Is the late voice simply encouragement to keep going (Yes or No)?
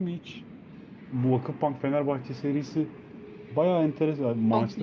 Yes